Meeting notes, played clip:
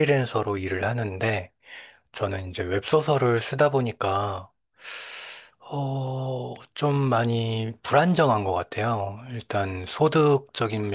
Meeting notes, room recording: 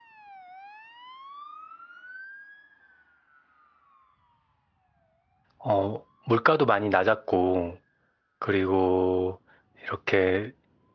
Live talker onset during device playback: 5.6 s

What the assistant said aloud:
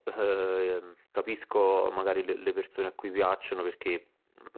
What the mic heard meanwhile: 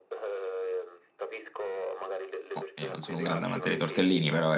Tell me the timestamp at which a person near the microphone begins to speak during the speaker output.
2.5 s

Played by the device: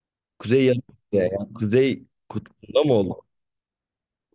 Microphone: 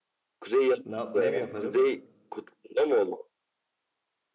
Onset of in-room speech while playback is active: 0.8 s

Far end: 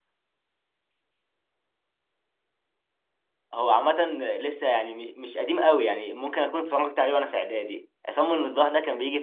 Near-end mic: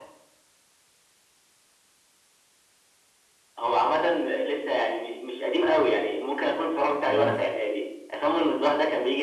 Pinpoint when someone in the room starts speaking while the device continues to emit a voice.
7.0 s

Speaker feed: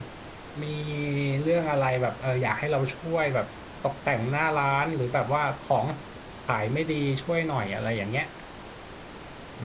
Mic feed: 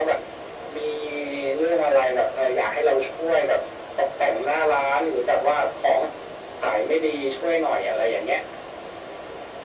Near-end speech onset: none

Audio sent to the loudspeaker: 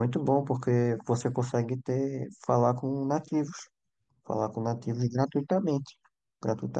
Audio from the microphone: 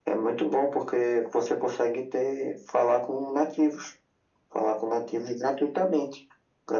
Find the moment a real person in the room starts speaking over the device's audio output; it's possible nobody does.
none

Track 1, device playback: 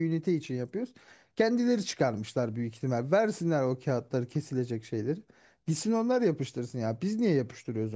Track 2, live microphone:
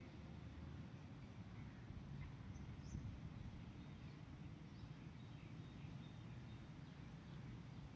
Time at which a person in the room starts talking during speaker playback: none

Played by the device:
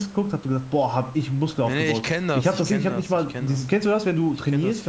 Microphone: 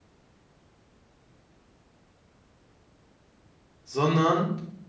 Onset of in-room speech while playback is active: 3.8 s

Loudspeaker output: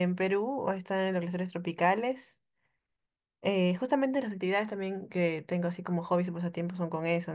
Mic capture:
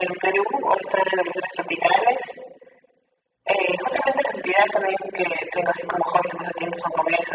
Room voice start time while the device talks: none

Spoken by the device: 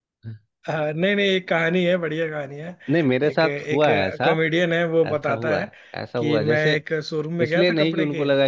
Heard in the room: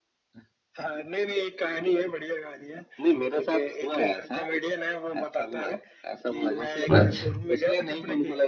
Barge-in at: 6.9 s

